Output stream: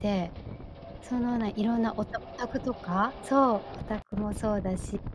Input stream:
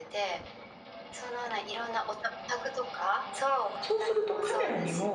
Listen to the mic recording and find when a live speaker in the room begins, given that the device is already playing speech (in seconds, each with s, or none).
3.8 s